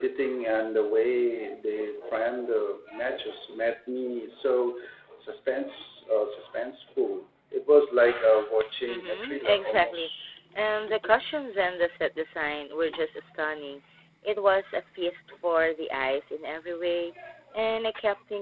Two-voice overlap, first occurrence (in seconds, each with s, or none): 8.9 s